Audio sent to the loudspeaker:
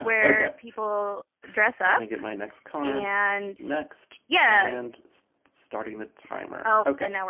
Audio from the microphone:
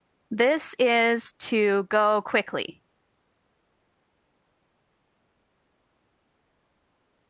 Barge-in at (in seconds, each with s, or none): 0.3 s